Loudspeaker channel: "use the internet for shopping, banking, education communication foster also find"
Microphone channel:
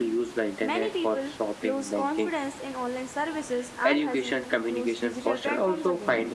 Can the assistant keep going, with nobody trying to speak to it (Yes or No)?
No